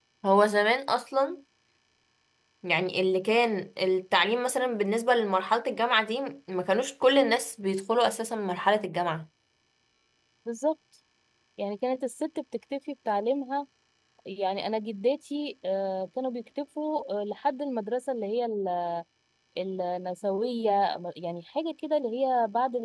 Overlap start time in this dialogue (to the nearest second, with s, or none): none